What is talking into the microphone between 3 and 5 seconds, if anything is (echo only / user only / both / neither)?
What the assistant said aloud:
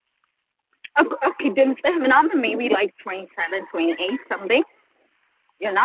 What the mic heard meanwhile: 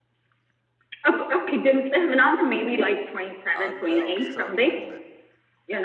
both